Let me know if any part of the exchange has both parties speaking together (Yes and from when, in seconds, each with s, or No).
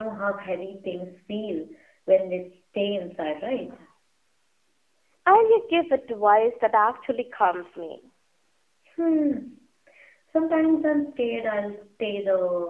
No